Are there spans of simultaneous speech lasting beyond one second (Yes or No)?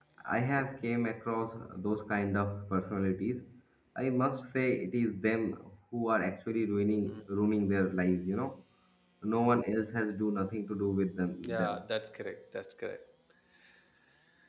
No